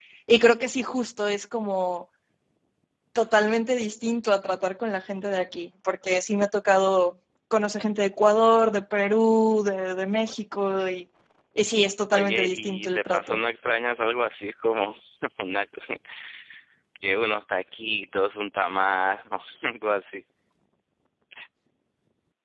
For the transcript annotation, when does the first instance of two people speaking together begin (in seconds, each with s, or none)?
12.1 s